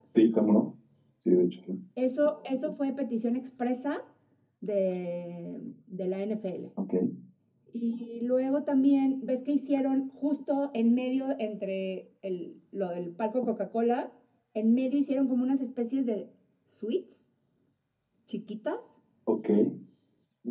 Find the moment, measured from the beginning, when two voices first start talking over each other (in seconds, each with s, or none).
none